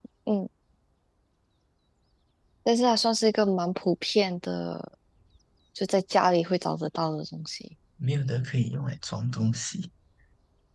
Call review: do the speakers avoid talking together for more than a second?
Yes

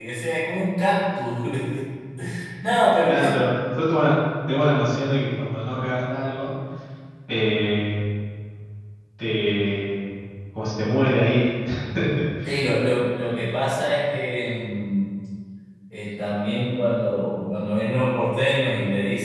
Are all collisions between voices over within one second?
Yes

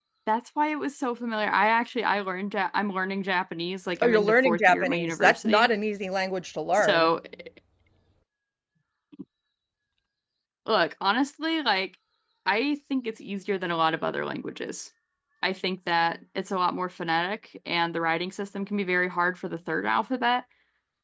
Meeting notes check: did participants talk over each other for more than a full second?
Yes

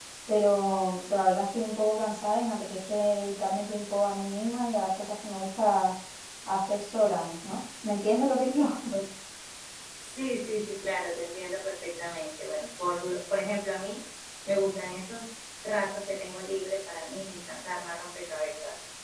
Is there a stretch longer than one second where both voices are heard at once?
No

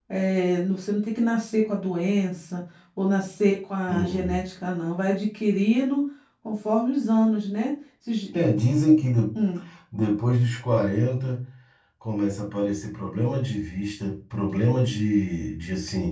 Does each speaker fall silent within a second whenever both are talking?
Yes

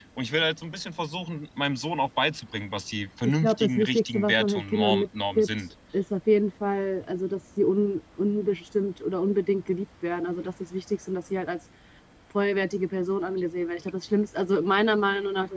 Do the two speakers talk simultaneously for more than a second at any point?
Yes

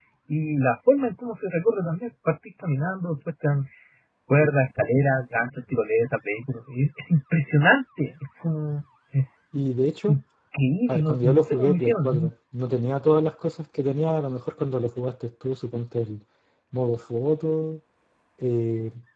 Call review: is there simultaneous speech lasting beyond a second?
Yes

